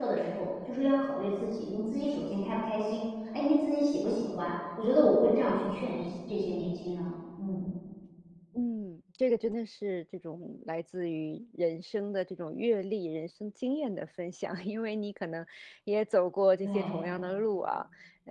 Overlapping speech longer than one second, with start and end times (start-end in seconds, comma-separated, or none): none